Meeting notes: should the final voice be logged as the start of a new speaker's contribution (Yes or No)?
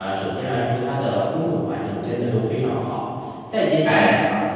No